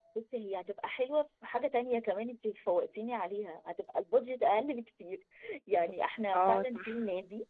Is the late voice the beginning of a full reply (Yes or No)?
No